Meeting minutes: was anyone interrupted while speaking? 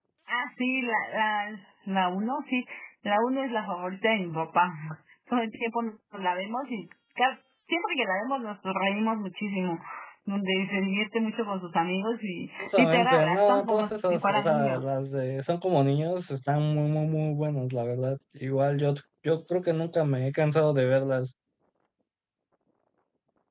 Yes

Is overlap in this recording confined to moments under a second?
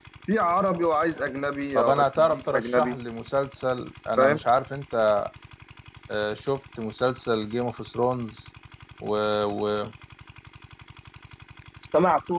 No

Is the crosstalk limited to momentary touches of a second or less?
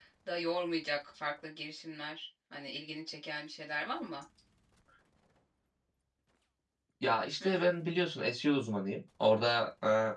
Yes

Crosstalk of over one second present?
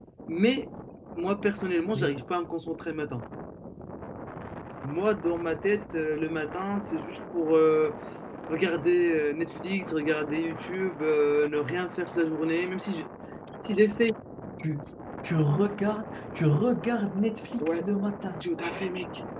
No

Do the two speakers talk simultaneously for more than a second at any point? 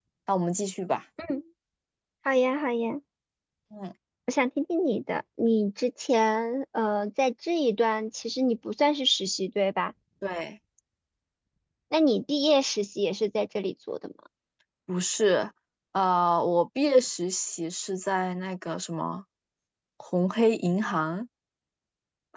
No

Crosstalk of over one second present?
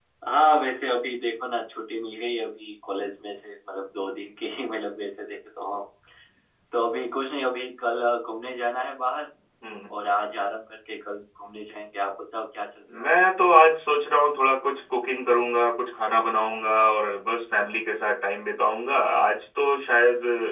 No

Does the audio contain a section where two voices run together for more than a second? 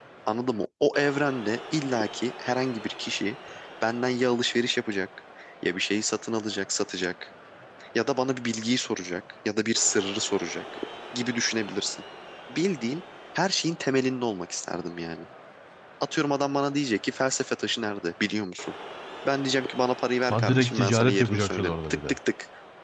Yes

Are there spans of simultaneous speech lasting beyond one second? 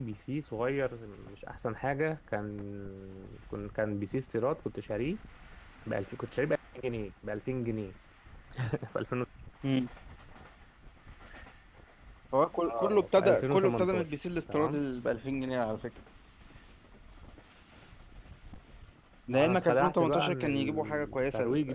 Yes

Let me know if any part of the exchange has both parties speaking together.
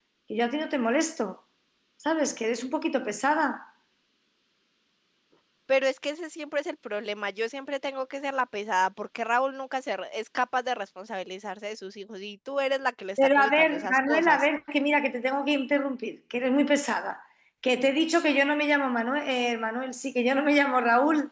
Yes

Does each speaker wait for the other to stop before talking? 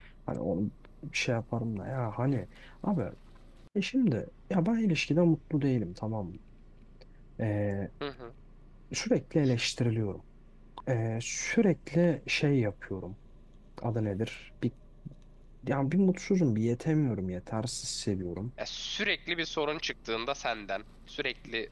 Yes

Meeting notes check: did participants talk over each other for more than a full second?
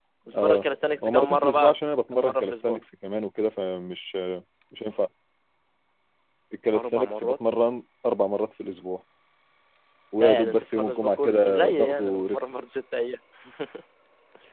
Yes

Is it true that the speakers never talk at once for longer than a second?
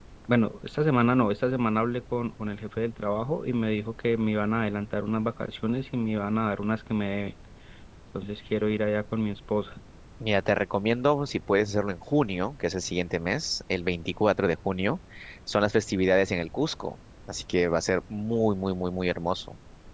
Yes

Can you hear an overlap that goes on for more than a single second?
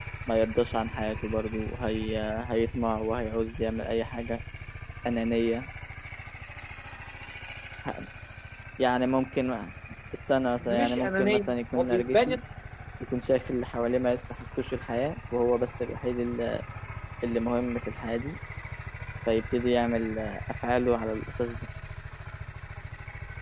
Yes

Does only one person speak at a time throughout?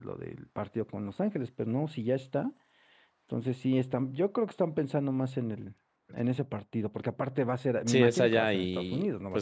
No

